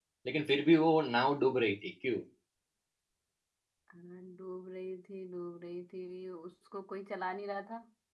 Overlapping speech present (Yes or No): No